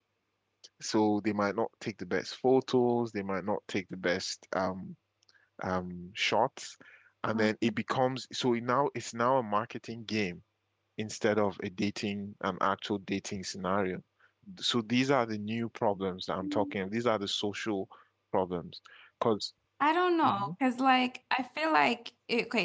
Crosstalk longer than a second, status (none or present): none